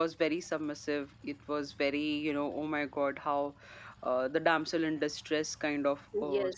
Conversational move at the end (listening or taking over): taking over